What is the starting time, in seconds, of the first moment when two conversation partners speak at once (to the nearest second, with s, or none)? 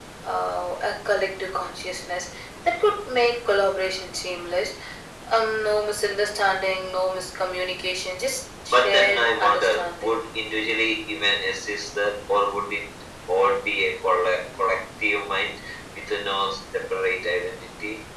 9 s